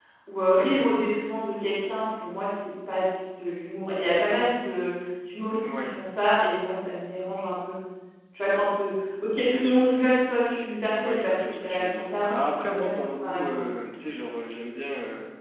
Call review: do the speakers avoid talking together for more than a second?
No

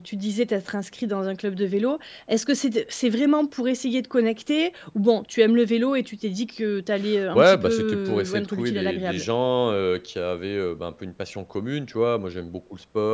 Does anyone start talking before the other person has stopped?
Yes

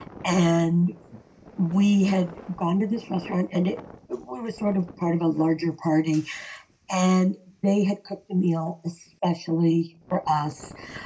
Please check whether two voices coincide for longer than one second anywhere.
No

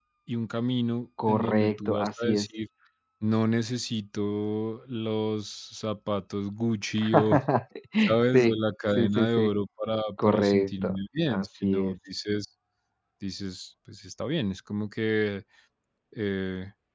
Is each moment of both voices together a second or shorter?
No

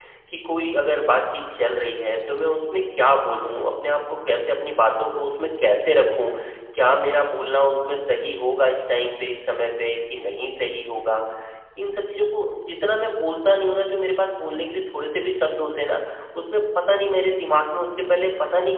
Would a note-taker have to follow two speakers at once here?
No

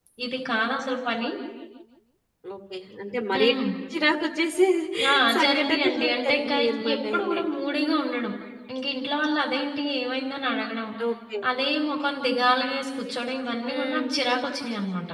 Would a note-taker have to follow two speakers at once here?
Yes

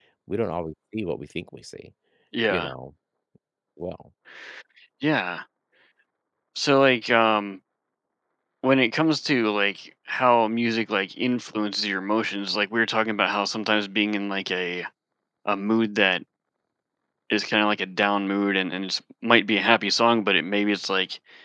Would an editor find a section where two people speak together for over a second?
No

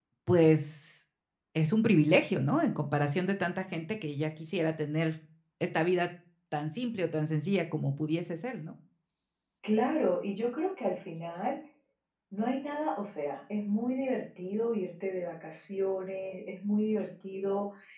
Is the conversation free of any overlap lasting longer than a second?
Yes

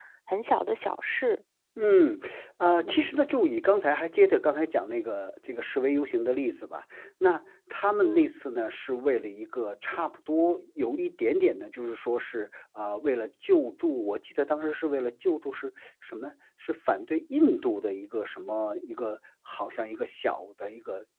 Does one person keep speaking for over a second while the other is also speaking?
No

